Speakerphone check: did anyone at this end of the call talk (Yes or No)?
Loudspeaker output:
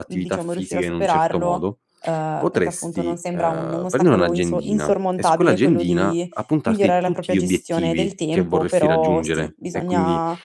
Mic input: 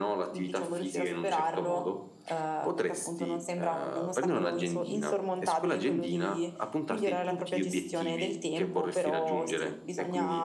No